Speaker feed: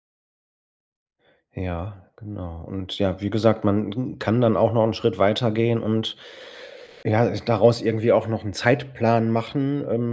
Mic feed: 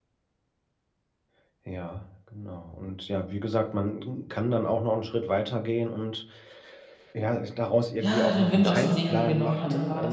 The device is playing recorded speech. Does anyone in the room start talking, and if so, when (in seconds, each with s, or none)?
8.0 s